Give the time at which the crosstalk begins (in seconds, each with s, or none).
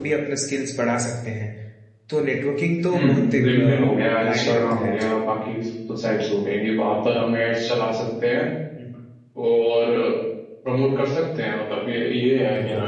2.9 s